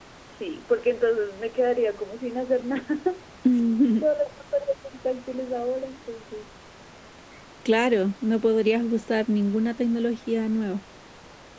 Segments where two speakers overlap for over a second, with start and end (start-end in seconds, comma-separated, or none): none